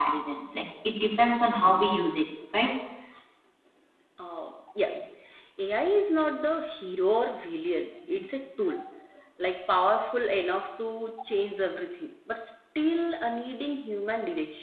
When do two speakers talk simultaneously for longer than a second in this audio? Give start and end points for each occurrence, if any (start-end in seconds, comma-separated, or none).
none